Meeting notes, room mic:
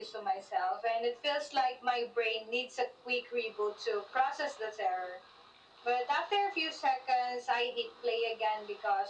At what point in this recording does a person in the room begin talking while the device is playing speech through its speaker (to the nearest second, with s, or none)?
none